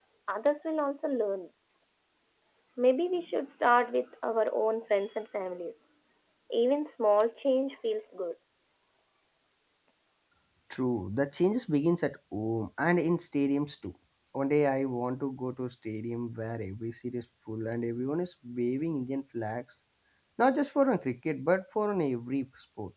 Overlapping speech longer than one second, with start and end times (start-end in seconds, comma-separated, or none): none